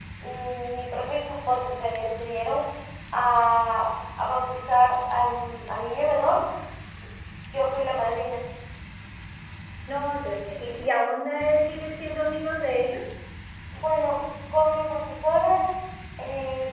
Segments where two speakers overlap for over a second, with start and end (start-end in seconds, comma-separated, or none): none